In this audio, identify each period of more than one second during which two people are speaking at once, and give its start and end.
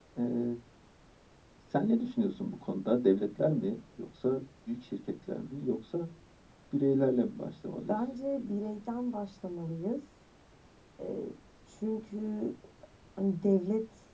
none

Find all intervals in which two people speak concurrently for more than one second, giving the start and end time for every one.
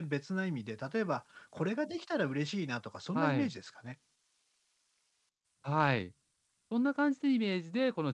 none

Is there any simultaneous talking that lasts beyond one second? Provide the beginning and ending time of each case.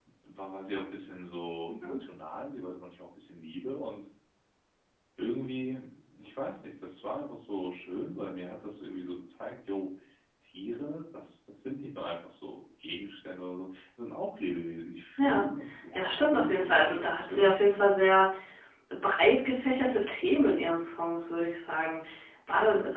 15.9-17.5

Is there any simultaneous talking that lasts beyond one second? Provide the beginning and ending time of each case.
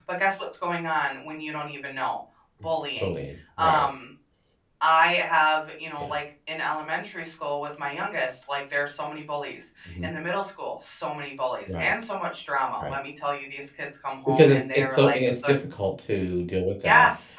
14.3-15.5

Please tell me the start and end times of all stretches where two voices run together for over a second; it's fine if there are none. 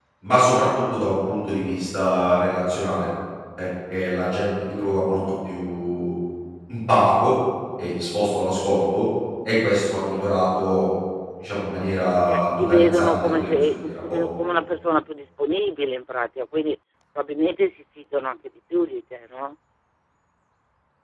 12.3-14.2

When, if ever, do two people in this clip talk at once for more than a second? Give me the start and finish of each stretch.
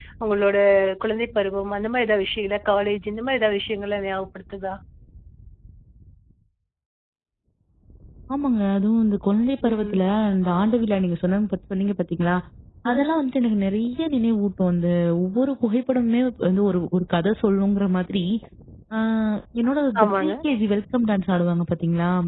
none

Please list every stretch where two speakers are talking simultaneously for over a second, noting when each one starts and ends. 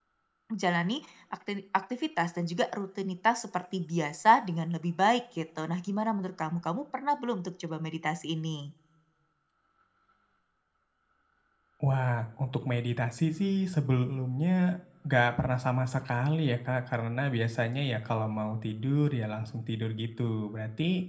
none

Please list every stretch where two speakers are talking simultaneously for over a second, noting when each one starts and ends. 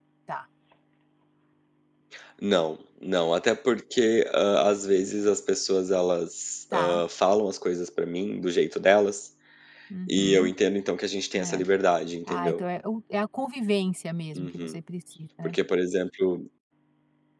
none

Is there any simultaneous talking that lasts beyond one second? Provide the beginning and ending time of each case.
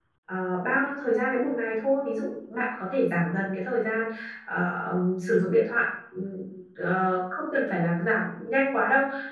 none

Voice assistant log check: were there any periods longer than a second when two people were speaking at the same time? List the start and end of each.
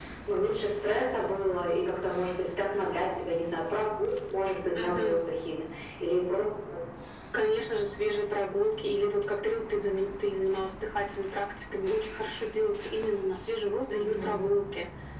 none

